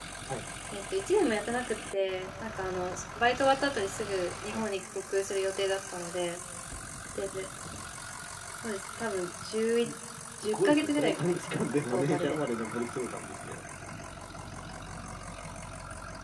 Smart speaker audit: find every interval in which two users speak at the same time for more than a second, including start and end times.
10.5-12.4

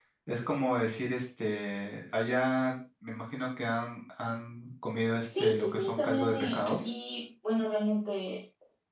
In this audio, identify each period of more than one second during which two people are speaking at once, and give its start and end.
5.4-6.9

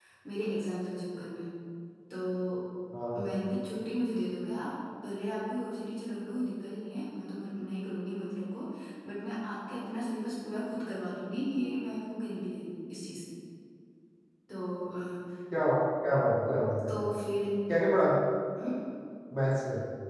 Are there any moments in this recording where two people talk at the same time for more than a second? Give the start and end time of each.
none

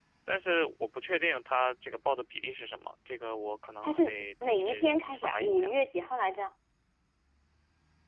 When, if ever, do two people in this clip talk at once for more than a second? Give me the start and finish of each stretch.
3.8-5.7

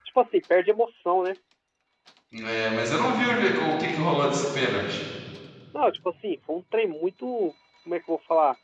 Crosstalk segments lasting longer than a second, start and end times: none

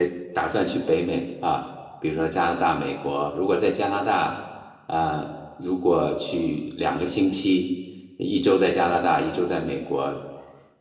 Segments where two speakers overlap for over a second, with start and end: none

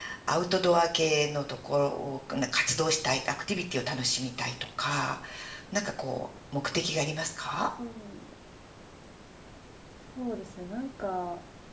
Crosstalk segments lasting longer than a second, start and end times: none

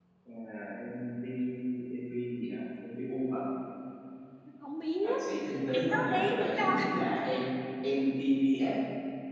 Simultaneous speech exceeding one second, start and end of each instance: 5.7-6.9

